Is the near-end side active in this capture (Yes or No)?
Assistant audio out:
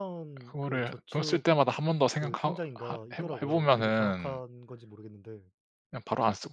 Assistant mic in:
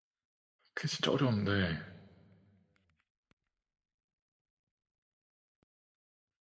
Yes